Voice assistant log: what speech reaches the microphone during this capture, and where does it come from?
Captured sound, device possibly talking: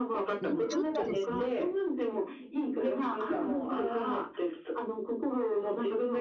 both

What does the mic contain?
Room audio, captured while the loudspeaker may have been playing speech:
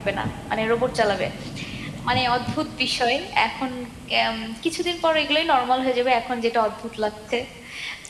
echo only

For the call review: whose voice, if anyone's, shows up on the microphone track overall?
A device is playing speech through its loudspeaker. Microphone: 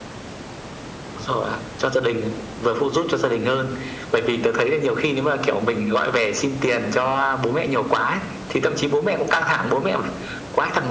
echo only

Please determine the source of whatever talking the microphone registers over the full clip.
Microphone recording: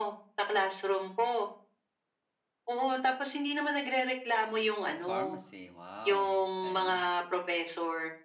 both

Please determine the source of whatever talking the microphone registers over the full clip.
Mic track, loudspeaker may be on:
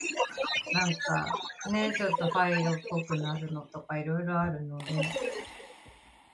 both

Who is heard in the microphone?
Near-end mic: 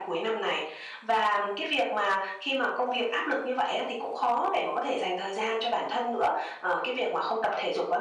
echo only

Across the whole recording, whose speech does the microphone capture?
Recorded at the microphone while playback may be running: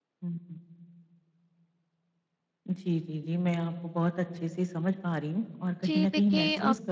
both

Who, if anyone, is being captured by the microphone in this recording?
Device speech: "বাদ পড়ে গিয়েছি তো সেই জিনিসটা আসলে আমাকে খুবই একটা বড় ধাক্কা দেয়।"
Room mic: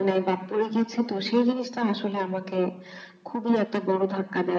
echo only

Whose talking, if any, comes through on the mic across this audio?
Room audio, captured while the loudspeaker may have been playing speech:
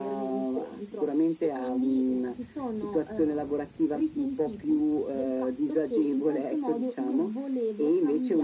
echo only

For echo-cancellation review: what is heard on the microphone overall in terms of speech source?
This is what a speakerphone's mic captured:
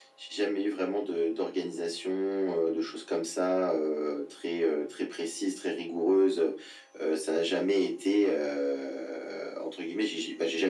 echo only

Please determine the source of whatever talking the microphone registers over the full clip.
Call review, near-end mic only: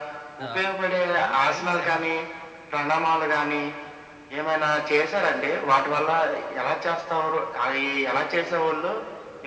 both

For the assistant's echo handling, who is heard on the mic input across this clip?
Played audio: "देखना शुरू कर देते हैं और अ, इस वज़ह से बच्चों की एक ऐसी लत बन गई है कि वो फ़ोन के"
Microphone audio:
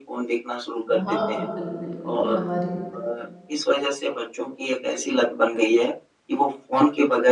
both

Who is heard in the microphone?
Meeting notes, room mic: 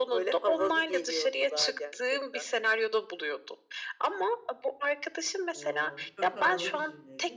both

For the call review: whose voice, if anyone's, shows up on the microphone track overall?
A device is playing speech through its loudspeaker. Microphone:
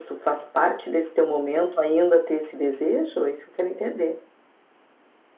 echo only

